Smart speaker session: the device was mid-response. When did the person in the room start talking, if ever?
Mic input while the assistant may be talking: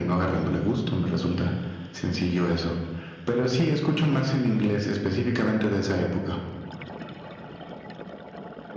none

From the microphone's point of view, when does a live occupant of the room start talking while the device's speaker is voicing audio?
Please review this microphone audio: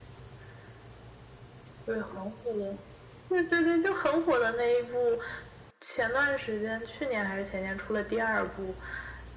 none

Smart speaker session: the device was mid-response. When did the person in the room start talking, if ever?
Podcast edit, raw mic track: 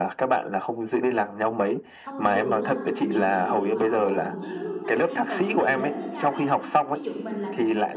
2 s

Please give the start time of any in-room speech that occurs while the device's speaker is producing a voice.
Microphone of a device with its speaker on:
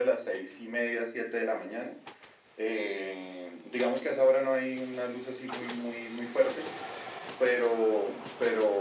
none

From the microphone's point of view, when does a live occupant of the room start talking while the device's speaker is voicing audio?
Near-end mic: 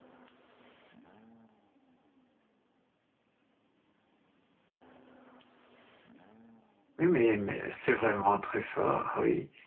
7 s

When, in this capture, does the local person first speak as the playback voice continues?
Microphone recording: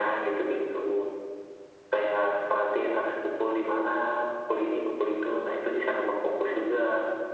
none

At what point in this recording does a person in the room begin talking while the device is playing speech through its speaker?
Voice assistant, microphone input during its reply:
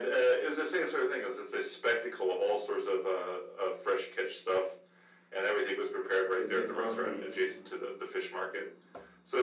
6 s

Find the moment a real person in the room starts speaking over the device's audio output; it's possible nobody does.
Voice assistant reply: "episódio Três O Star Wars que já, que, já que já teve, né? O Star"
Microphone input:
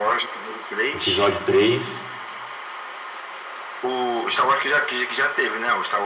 1 s

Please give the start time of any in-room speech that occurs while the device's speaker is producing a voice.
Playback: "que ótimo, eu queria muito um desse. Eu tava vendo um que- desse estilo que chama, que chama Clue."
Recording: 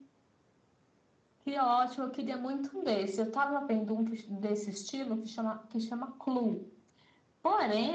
none

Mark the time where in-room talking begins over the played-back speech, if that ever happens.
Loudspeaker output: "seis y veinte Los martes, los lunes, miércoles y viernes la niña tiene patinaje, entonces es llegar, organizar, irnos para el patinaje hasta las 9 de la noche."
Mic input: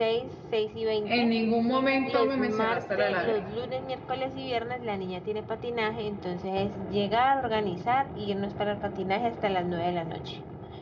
1 s

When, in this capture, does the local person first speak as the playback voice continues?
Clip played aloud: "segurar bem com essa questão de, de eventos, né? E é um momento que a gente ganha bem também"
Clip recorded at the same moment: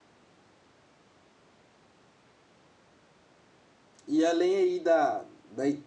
4 s

